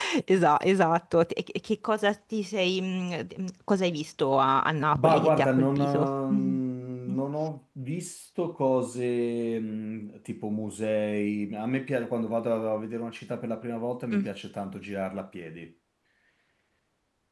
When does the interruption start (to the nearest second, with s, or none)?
5 s